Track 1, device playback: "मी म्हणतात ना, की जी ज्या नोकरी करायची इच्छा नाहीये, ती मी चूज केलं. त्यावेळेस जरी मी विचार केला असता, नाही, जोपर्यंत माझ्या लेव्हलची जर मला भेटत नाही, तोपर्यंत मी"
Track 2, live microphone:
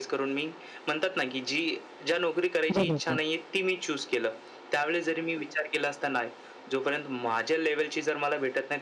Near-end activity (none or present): present